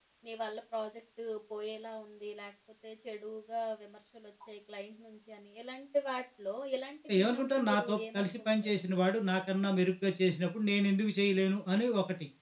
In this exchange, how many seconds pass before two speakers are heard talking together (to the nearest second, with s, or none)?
7 s